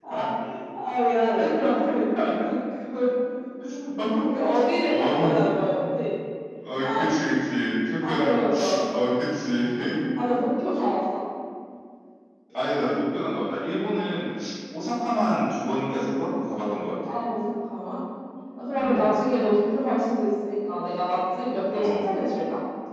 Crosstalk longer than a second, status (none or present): present